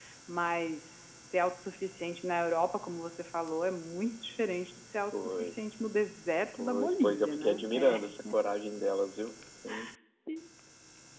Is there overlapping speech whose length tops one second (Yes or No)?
Yes